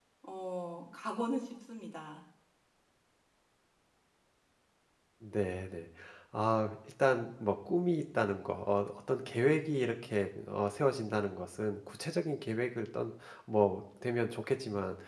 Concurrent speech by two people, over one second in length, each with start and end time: none

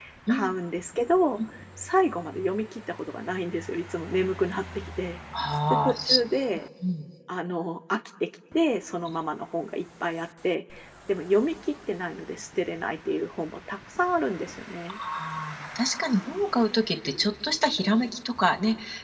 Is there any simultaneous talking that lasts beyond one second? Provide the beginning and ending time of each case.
none

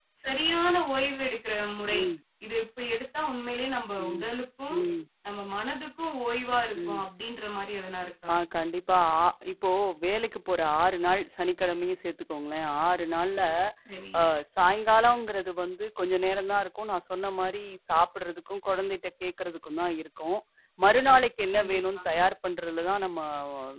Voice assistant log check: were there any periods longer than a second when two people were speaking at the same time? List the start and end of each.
none

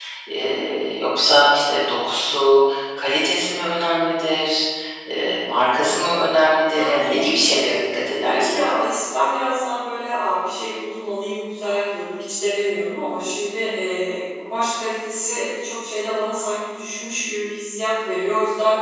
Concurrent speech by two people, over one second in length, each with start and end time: 6.7-8.6

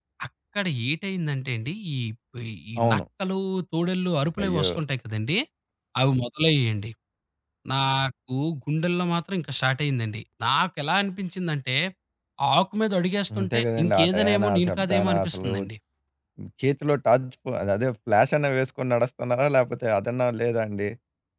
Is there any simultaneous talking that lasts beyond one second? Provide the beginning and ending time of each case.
13.4-15.5

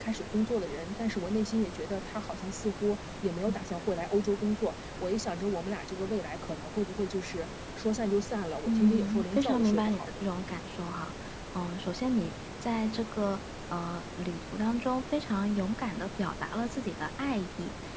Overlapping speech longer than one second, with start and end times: 8.7-10.1

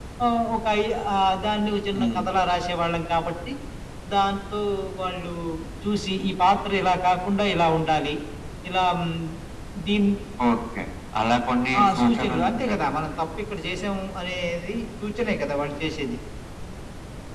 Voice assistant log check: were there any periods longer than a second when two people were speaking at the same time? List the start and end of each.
11.8-13.2

